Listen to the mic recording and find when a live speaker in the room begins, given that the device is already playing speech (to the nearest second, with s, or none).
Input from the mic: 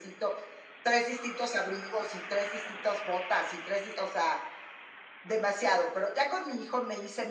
none